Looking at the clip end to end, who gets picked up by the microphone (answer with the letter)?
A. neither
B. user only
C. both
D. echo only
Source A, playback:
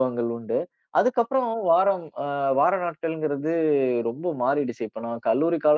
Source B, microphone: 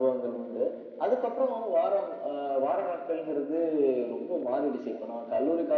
D